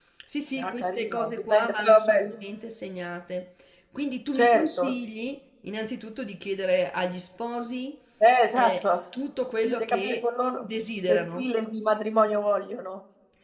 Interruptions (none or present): present